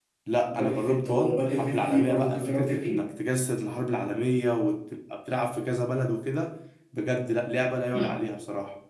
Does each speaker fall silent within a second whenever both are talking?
No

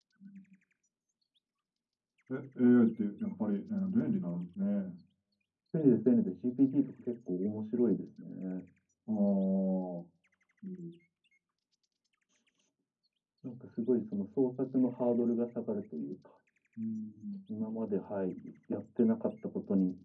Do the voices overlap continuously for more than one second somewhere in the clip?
No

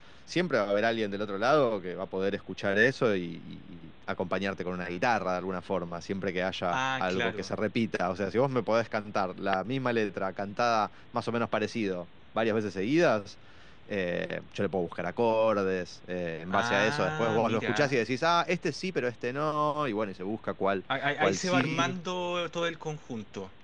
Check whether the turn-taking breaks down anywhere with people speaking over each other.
Yes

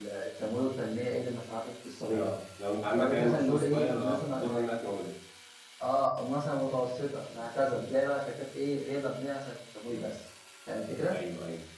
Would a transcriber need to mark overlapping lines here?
Yes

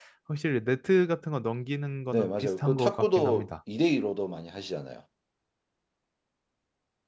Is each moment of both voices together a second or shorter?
No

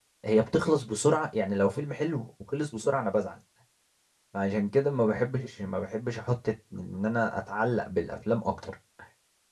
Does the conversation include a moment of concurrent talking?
No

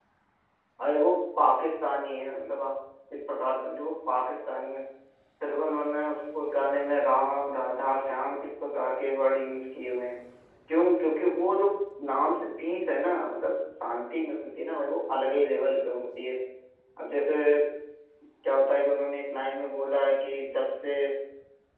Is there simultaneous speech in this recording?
No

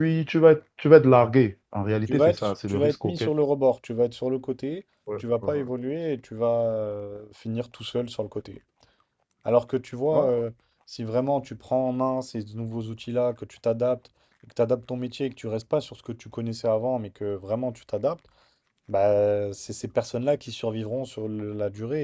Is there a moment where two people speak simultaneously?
Yes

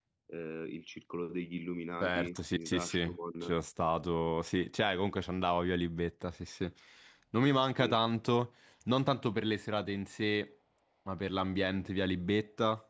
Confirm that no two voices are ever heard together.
No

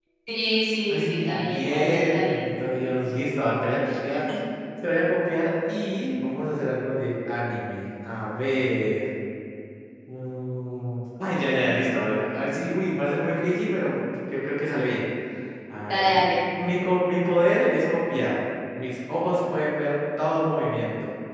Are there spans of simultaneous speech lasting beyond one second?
Yes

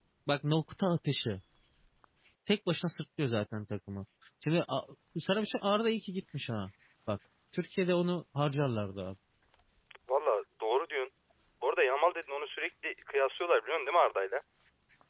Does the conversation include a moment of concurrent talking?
No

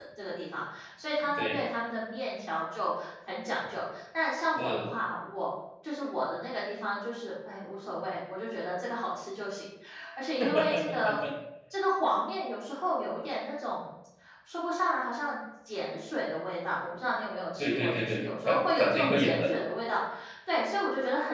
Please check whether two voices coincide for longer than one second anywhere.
Yes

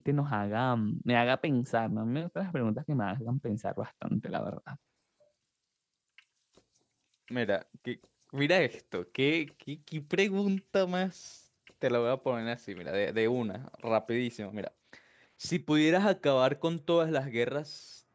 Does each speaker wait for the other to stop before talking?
Yes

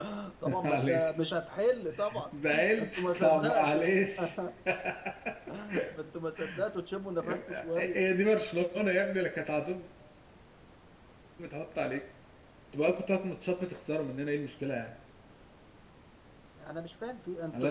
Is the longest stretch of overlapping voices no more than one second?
No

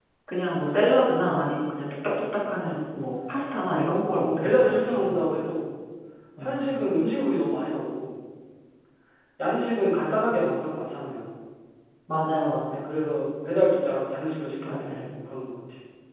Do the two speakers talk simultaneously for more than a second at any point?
Yes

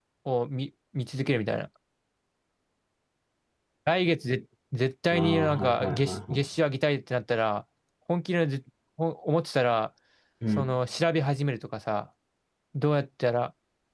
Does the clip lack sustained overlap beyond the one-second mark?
No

